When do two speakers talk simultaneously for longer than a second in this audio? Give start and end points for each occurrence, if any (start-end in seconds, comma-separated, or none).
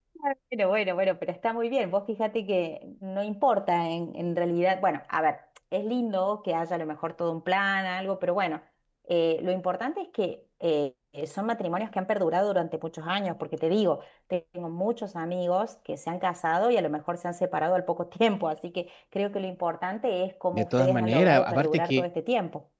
20.5-22.0